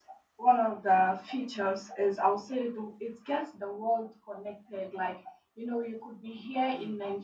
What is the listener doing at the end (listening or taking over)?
listening